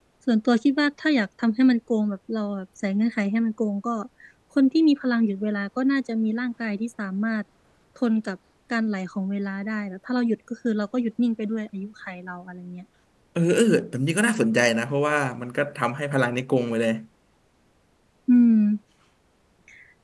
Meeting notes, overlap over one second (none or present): none